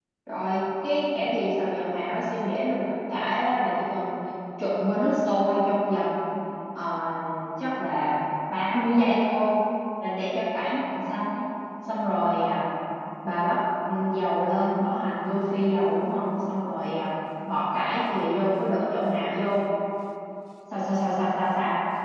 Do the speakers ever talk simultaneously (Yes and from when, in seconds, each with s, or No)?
No